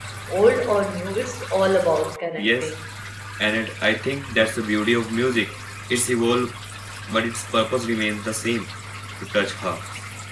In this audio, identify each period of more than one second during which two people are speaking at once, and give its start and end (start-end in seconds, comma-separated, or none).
none